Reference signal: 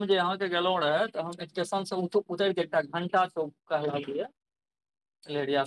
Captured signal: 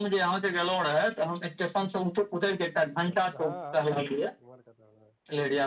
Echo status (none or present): present